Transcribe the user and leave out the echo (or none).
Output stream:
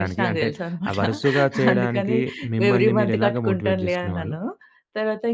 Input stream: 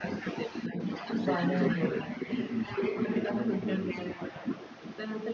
బానే ఉండేది.